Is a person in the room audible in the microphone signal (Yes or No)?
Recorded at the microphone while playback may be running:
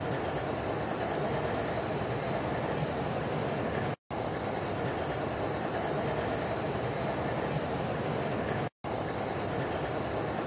No